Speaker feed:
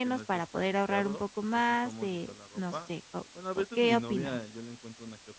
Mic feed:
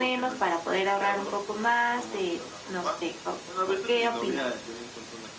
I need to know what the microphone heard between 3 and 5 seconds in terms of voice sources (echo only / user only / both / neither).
echo only